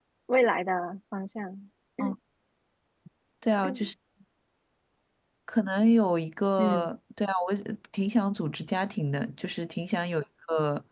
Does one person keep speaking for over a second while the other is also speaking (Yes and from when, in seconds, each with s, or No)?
No